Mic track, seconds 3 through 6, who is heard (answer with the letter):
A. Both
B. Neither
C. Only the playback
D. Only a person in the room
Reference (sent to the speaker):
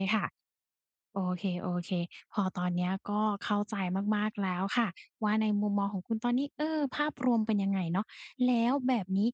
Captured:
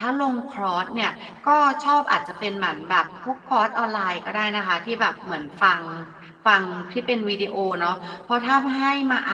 D